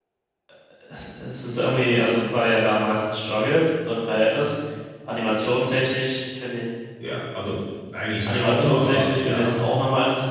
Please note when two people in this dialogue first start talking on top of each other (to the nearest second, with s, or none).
8 s